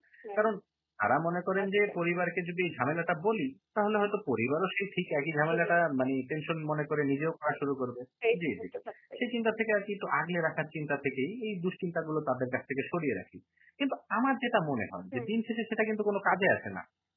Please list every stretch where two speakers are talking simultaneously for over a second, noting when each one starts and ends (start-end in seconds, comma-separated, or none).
none